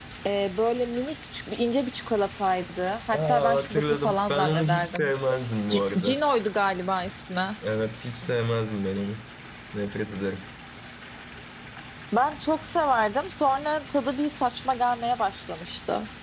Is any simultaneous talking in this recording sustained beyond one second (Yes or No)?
Yes